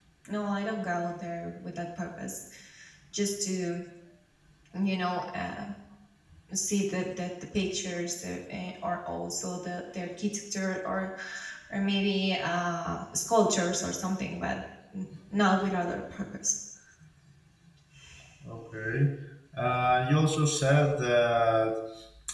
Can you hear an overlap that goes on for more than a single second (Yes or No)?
No